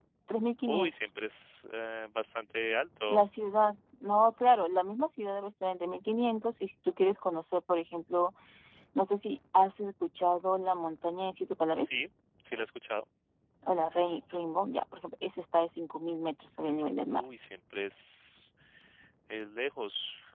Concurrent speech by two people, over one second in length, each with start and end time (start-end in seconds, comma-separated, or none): none